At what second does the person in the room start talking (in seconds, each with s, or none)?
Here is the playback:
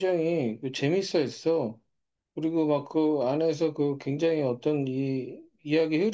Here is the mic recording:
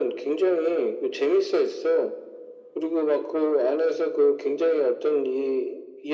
none